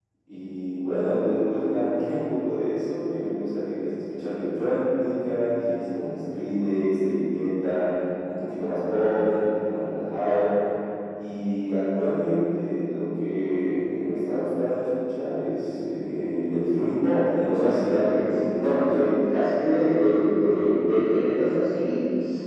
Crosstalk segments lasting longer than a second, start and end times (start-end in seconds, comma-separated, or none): 17.3-19.2